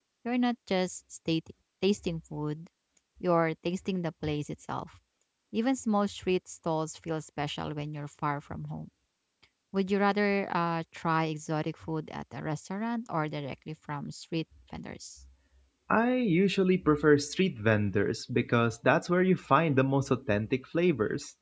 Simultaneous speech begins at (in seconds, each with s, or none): none